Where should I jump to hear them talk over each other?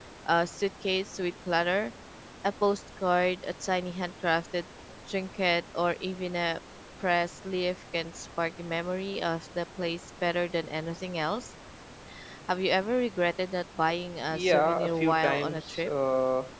14.3 s

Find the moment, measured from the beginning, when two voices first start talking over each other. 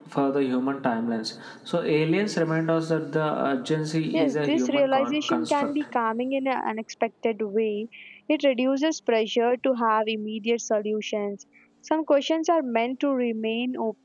4.1 s

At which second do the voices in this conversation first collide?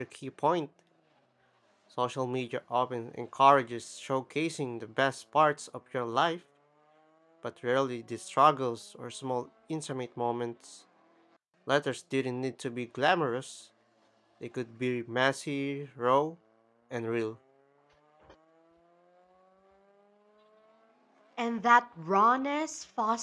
none

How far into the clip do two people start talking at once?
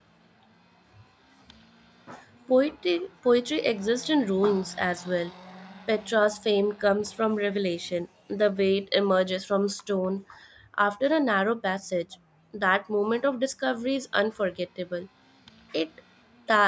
none

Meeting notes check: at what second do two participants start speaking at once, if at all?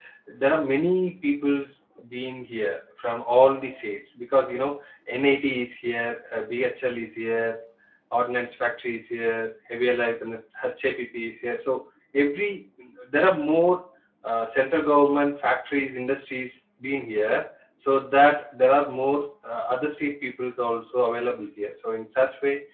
none

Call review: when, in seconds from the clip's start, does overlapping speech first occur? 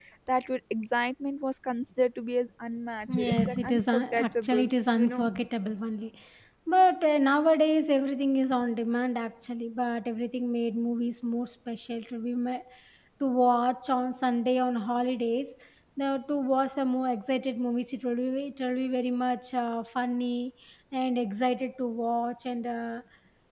3.1 s

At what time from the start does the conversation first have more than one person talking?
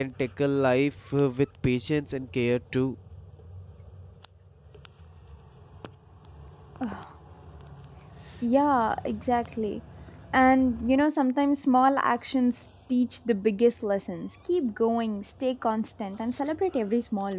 none

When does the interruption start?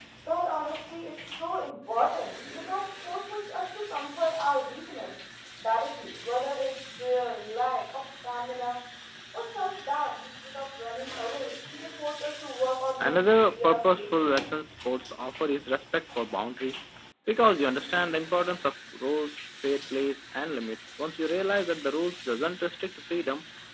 13.0 s

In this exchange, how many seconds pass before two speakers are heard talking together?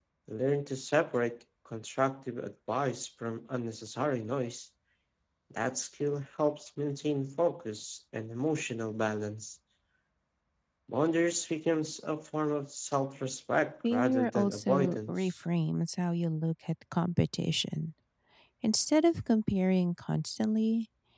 13.8 s

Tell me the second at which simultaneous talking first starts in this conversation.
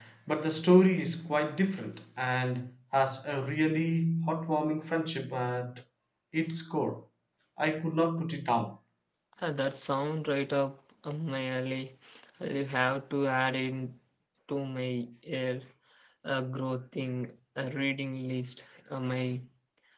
none

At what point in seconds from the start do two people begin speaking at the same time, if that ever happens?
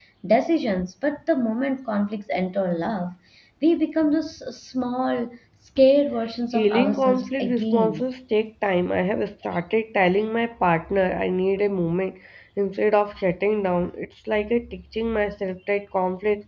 6.5 s

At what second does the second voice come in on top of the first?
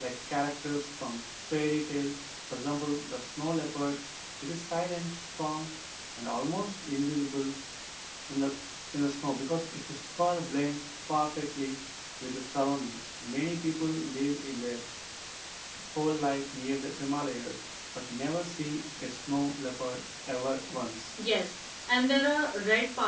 none

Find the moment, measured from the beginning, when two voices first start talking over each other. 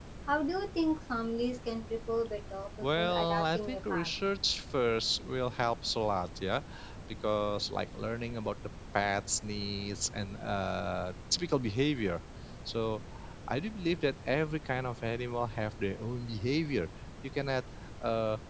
2.8 s

